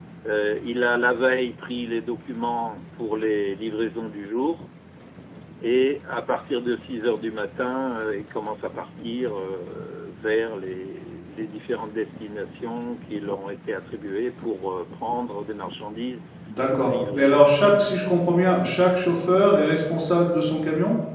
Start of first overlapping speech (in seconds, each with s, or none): 16.8 s